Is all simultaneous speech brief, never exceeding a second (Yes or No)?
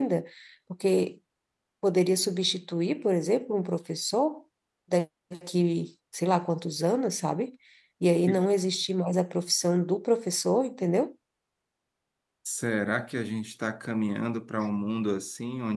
Yes